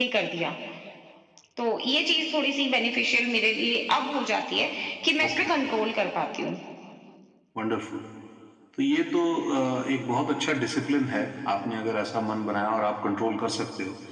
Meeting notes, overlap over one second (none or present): none